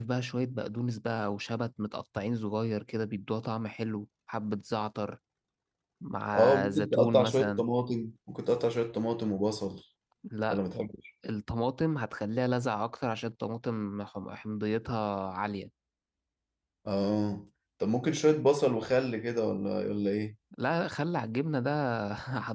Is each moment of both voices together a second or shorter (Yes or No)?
No